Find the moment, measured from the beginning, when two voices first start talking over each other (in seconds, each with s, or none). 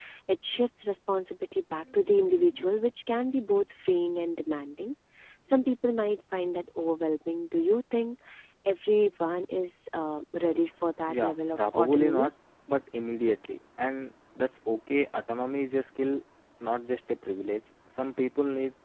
11.1 s